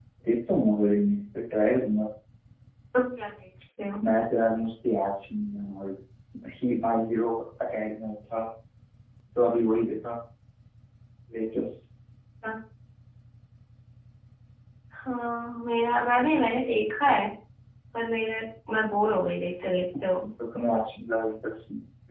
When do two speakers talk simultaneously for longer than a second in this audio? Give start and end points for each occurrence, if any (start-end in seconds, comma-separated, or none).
none